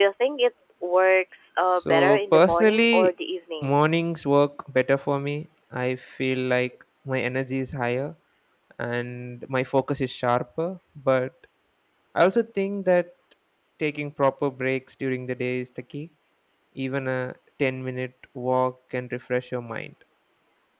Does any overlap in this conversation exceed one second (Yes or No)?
Yes